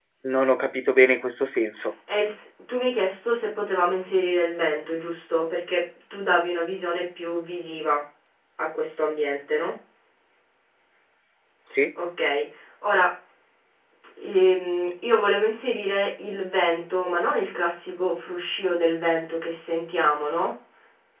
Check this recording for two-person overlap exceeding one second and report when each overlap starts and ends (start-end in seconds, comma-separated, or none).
none